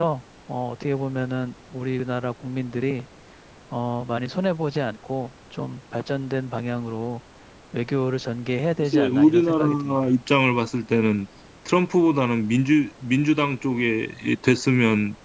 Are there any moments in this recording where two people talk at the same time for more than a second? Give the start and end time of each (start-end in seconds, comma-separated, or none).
8.8-10.1